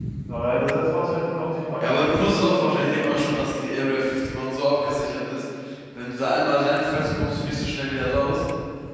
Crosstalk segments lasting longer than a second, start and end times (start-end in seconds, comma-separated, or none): 1.8-3.4